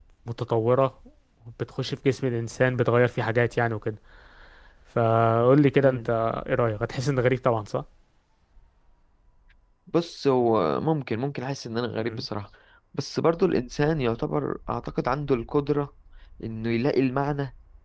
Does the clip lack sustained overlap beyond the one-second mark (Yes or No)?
Yes